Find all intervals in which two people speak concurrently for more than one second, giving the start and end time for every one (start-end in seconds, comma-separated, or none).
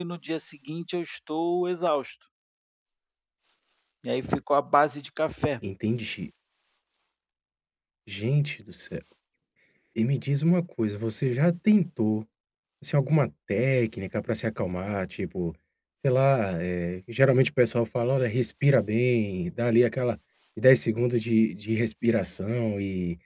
none